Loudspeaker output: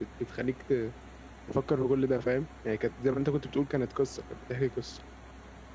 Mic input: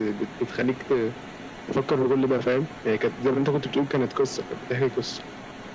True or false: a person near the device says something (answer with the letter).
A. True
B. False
B